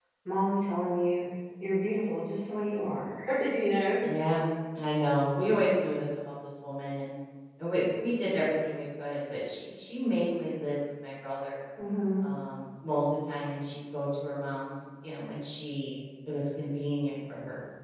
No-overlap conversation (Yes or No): Yes